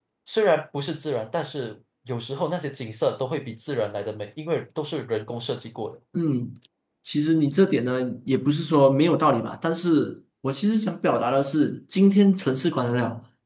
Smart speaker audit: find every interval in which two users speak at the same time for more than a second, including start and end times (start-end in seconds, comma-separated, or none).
none